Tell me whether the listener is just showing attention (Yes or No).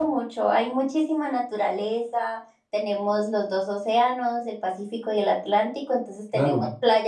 Yes